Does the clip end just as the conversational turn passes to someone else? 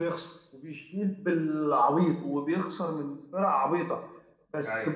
No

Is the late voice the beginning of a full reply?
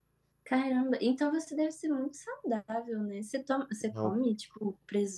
No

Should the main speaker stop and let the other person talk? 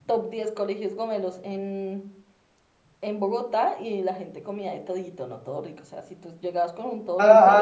Yes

